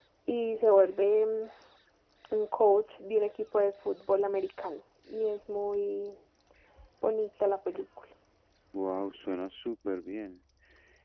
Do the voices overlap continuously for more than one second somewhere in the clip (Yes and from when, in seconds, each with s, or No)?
No